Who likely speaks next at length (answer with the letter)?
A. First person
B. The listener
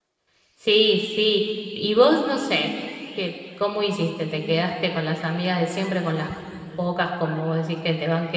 A